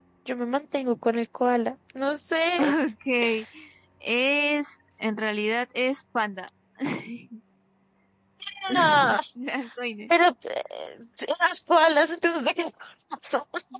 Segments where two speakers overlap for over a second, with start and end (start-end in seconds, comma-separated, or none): none